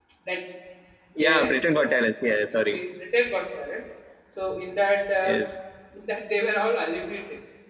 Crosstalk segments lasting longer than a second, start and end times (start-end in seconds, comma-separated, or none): 1.2-2.8